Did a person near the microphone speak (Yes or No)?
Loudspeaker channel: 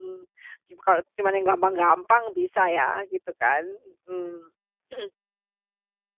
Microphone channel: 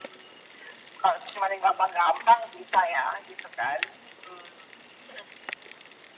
No